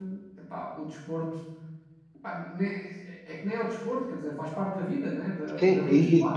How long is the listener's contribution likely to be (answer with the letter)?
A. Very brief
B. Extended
B